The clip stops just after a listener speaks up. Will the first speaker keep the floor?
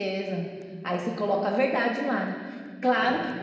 Yes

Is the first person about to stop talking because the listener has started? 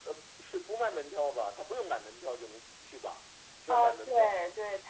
Yes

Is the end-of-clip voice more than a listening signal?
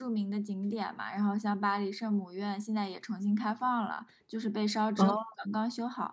No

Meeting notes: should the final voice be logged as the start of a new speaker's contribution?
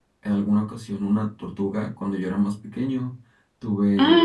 No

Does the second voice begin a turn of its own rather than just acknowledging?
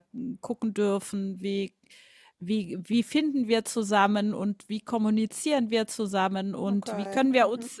No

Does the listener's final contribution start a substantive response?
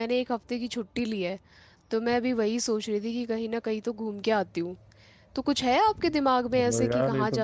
Yes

